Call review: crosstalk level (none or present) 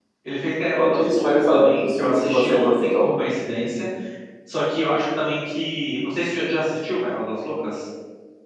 present